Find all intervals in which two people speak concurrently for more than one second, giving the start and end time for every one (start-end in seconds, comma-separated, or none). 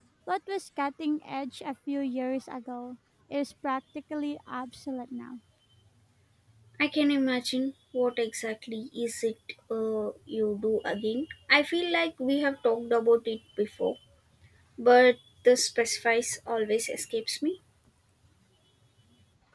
none